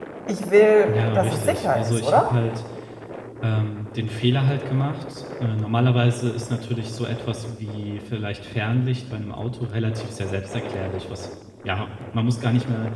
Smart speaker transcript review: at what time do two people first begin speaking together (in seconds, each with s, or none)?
0.9 s